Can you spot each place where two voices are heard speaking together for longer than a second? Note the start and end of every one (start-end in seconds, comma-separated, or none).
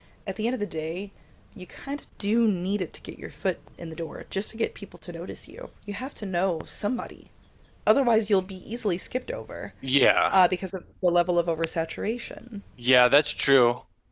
none